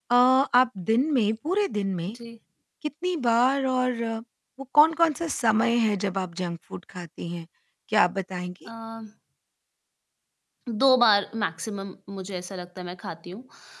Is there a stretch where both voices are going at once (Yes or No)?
No